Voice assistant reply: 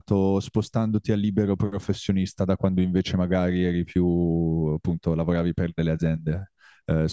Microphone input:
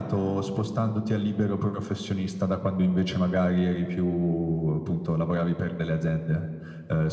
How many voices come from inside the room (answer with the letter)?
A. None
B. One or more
A